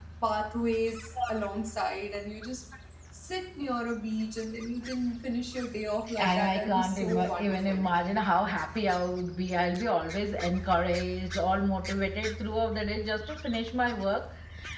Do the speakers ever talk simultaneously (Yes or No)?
Yes